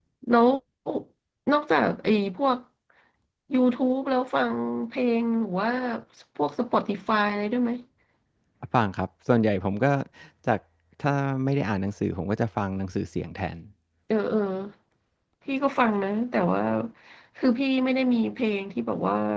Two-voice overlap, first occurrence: none

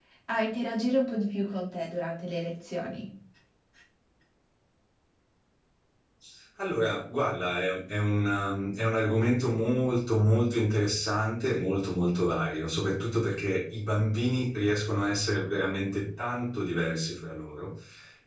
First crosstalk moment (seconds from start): none

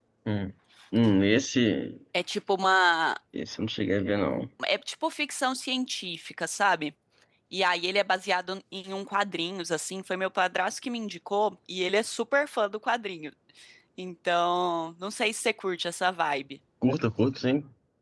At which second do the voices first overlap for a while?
none

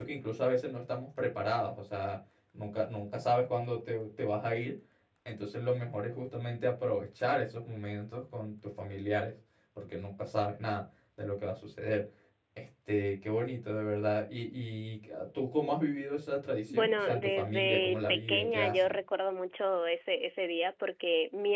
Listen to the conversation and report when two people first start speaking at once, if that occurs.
16.7 s

